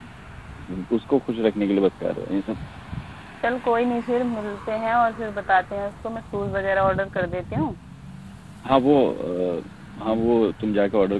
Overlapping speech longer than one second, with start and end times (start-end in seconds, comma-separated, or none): none